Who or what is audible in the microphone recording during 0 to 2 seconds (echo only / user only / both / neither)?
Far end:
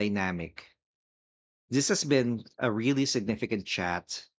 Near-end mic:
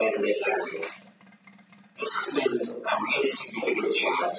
echo only